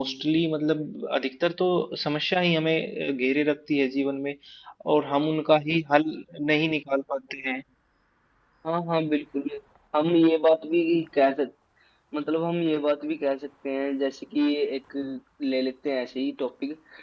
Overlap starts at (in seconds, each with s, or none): none